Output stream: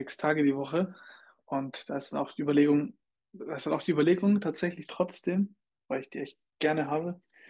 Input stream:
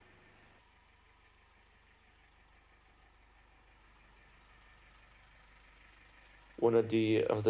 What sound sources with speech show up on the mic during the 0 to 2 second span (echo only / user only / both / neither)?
neither